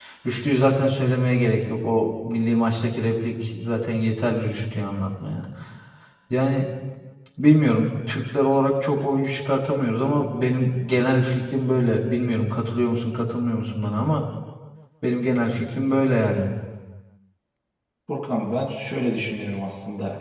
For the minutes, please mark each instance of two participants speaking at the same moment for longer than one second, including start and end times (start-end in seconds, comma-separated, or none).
none